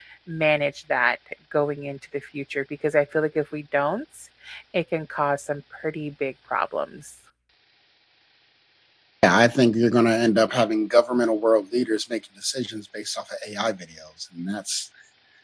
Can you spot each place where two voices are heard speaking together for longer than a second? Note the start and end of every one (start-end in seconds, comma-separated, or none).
none